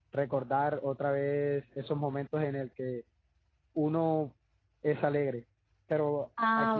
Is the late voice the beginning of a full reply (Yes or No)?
No